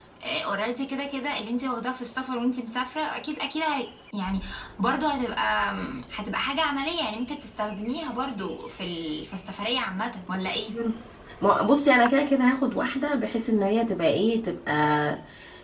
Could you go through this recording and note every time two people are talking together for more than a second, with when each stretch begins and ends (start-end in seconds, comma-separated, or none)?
none